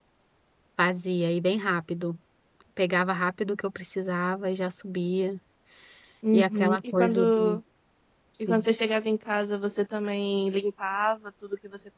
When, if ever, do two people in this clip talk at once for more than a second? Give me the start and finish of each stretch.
6.3-7.6

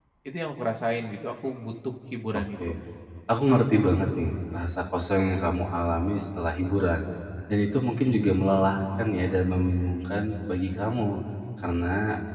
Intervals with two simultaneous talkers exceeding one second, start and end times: none

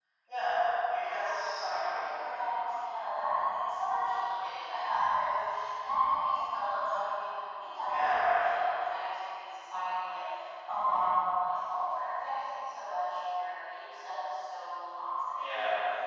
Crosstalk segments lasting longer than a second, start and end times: 1.0-2.7

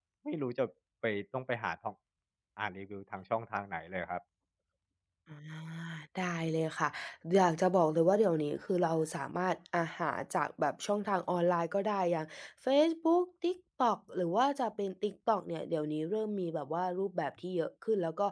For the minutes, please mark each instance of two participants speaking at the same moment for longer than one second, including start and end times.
none

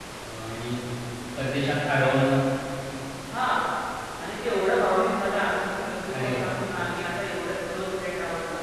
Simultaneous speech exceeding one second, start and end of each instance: none

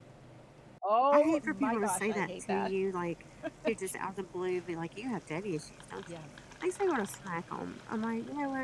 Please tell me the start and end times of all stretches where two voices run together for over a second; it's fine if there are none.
1.1-2.7

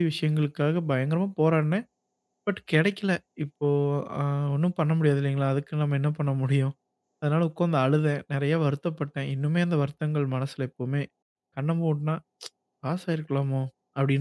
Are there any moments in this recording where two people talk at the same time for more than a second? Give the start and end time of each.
none

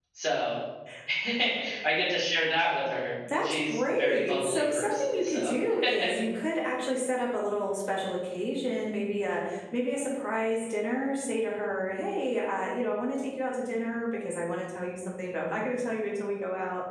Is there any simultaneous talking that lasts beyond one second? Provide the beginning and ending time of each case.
3.3-5.5

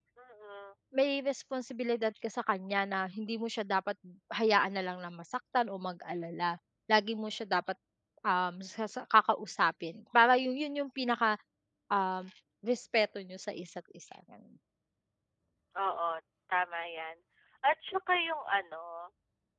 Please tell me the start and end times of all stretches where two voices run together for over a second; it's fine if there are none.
none

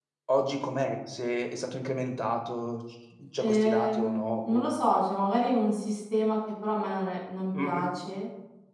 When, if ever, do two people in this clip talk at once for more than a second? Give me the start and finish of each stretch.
3.4-4.6

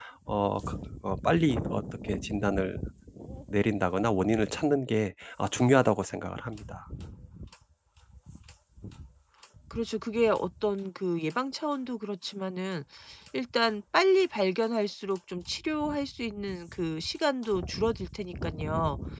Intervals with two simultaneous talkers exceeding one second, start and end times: none

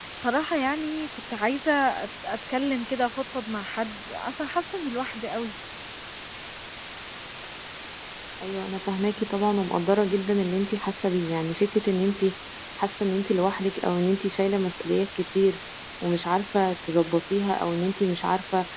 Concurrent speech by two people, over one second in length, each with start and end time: none

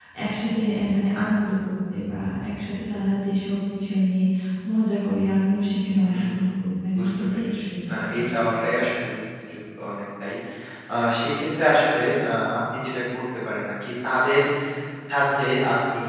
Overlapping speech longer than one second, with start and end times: 6.9-8.2

